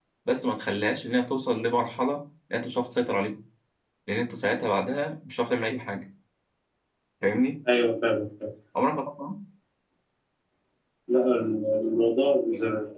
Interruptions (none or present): none